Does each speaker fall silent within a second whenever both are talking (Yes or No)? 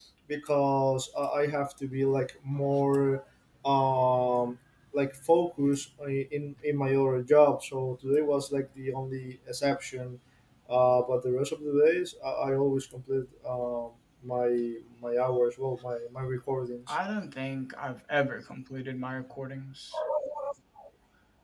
Yes